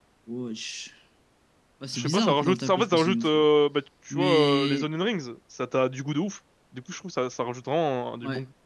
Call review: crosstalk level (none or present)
present